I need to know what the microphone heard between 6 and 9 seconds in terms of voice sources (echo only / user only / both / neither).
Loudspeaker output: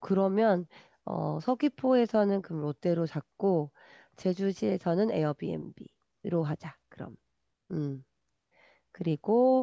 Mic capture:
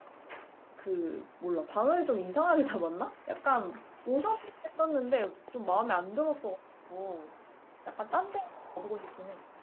user only